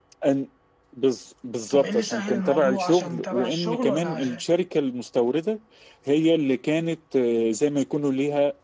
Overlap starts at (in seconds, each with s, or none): 1.7 s